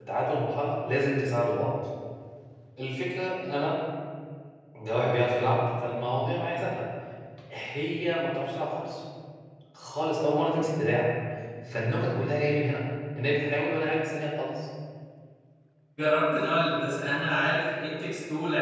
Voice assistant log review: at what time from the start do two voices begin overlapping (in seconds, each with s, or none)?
none